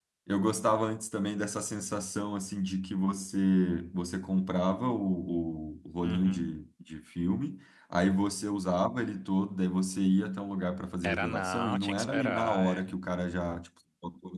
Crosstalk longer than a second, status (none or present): present